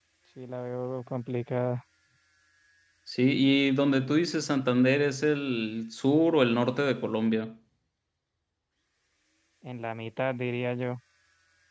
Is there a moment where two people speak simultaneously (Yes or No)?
No